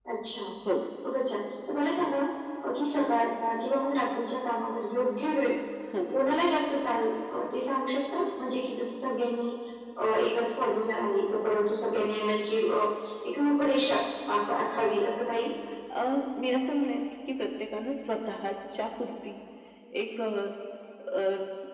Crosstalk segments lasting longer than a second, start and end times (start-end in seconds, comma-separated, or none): none